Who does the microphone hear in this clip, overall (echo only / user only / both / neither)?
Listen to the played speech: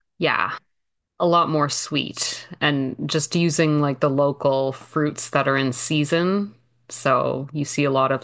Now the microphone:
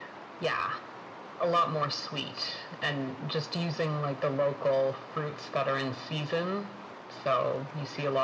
echo only